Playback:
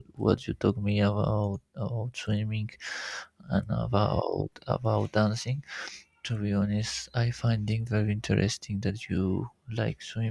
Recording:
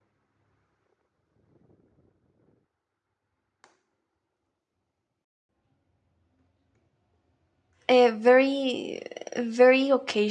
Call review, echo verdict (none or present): none